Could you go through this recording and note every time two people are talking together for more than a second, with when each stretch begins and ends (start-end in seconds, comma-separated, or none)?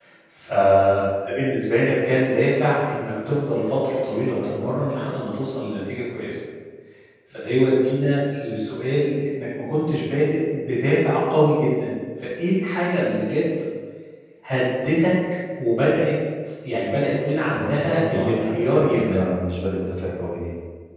17.5-19.0